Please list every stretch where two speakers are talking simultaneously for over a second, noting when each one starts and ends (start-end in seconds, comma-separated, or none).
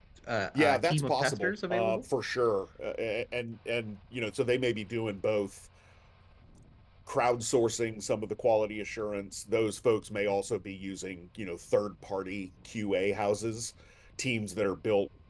0.5-2.0